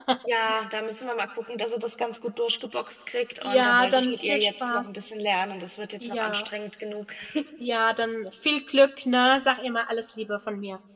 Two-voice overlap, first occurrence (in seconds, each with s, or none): 3.4 s